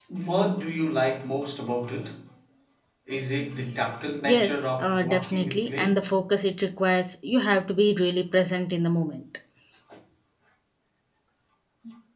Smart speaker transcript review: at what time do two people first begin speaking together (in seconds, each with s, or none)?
4.2 s